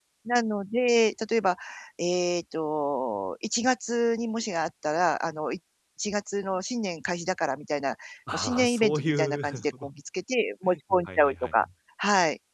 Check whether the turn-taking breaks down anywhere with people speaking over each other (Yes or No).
Yes